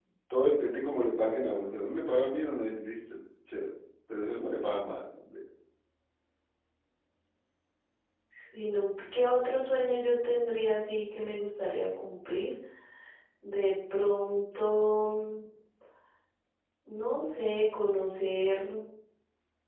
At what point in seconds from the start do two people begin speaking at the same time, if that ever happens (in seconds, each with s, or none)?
none